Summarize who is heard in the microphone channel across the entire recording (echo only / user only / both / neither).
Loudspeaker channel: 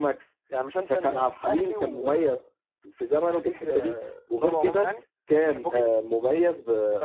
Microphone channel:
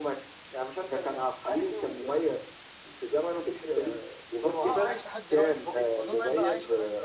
both